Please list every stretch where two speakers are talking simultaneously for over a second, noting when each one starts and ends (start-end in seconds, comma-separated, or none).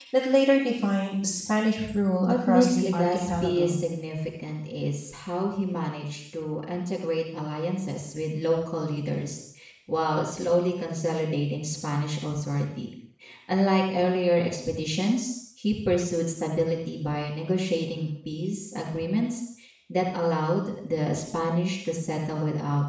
2.3-3.8